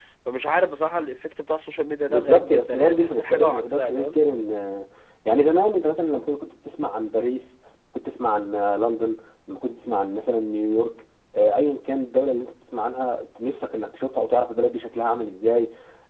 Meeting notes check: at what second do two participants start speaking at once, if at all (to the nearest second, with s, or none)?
2 s